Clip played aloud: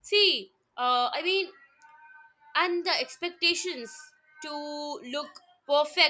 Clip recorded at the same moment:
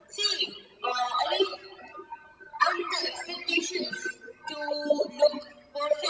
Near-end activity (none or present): none